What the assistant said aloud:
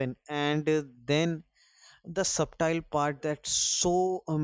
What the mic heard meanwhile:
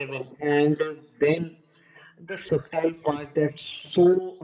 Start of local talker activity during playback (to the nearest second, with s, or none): none